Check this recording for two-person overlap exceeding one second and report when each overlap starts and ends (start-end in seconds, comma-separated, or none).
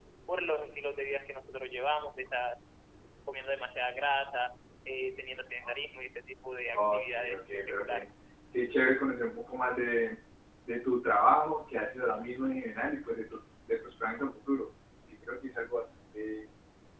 6.8-8.1